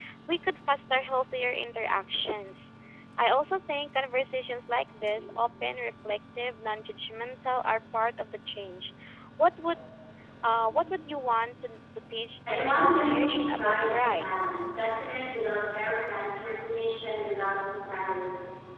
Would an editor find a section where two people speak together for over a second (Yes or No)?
Yes